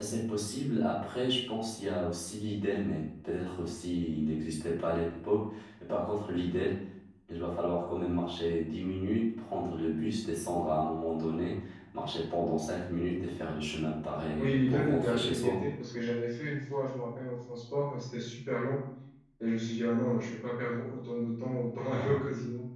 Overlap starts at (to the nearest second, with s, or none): 14 s